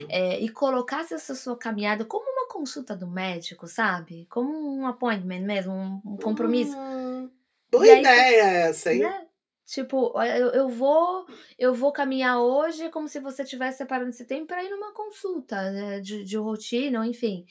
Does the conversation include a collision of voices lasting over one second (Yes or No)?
No